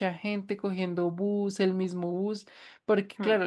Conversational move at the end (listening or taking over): listening